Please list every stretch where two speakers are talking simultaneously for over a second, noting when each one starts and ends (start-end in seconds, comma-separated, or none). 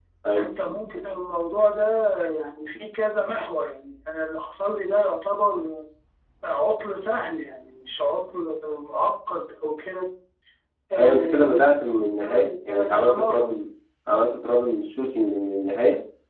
11.0-13.5